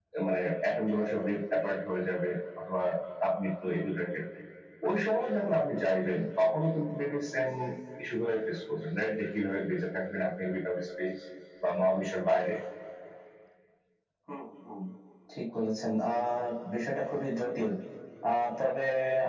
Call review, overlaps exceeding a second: none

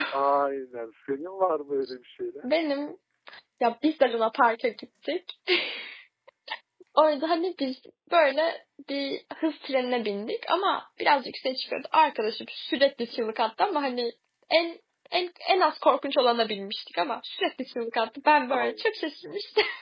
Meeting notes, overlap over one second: none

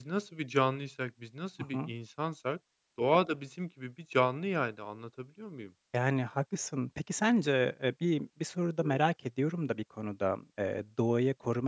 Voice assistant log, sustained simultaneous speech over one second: none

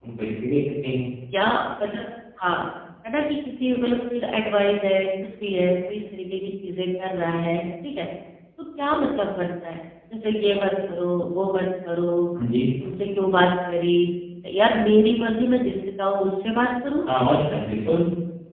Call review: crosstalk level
none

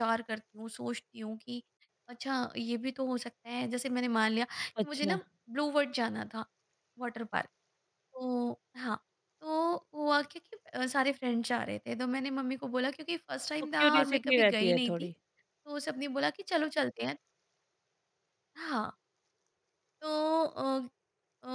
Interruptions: present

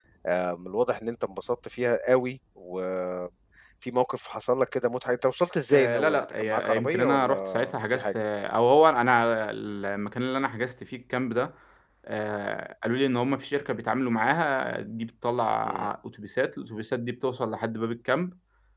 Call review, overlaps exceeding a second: present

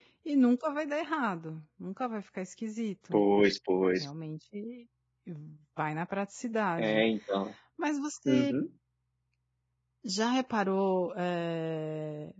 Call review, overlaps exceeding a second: none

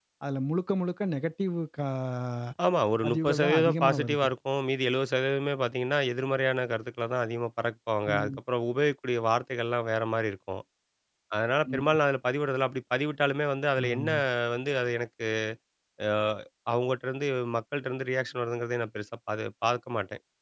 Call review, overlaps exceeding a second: present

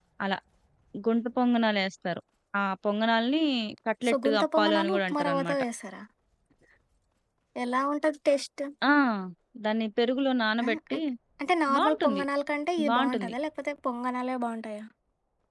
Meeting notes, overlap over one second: present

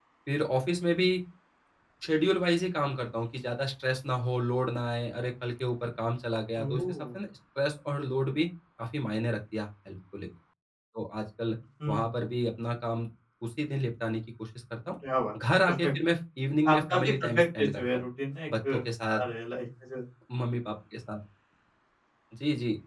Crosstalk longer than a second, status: present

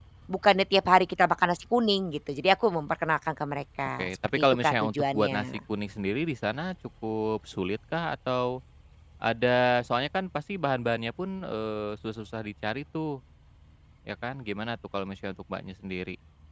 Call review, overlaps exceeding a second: present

